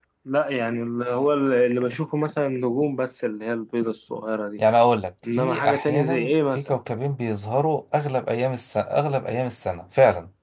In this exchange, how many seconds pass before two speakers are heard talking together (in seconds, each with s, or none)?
5.4 s